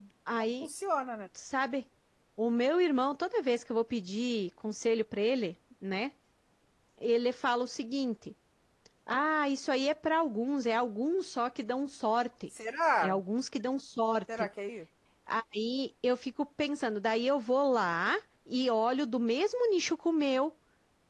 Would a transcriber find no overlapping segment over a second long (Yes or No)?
Yes